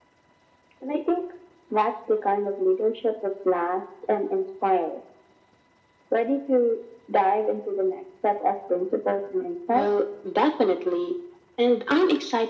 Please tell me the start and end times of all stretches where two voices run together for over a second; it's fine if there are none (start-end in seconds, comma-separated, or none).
none